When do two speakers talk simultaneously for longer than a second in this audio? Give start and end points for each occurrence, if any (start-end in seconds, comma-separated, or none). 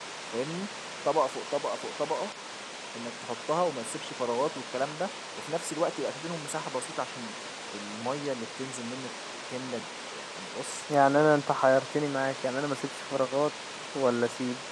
none